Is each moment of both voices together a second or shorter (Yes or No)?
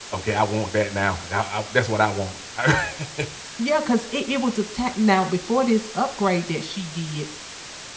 Yes